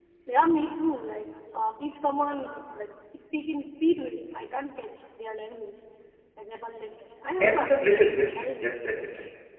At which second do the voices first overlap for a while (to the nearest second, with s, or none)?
7 s